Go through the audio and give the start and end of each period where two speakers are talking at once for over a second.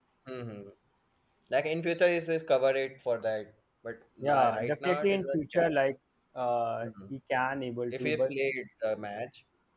4.2-5.7

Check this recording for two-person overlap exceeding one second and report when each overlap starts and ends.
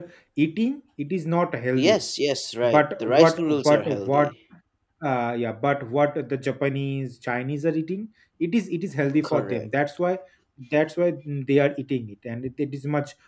2.6-4.3

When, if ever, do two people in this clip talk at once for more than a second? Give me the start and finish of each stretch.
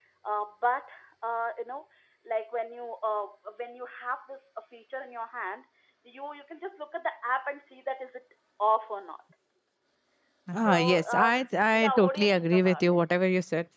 10.7-13.0

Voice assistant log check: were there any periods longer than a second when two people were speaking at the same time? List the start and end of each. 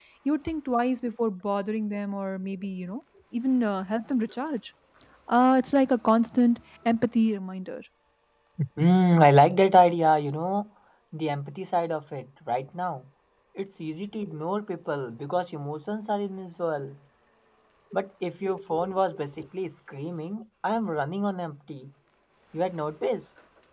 none

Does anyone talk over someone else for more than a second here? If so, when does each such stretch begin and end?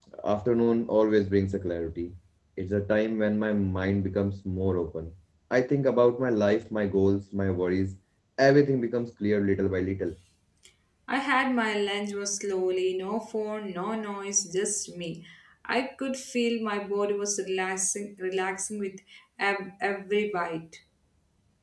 none

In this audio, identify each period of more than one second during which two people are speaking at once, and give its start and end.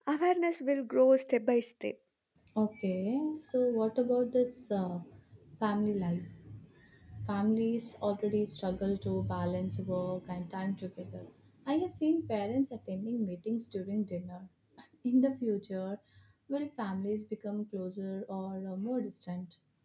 none

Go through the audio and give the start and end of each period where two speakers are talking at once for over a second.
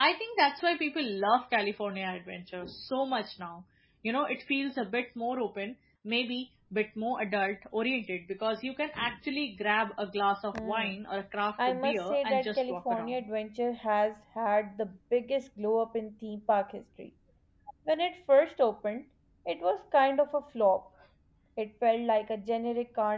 11.7-13.2

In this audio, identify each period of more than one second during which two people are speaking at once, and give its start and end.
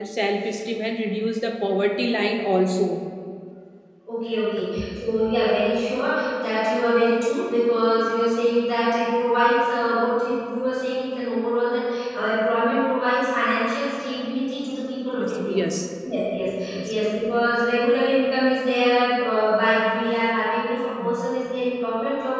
none

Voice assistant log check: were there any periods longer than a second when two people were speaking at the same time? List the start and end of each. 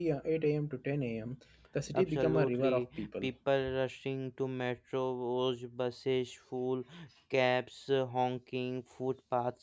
1.9-3.3

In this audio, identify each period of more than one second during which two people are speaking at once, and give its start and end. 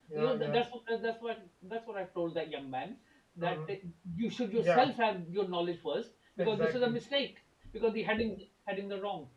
none

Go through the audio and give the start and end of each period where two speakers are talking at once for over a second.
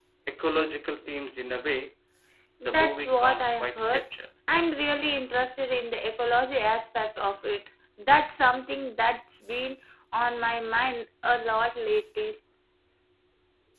2.6-4.0

